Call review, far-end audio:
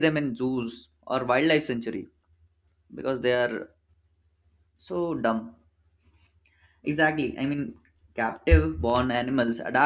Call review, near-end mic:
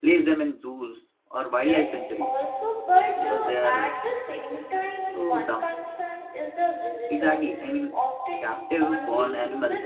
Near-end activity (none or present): present